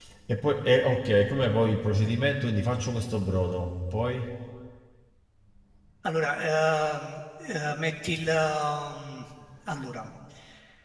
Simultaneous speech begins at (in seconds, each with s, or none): none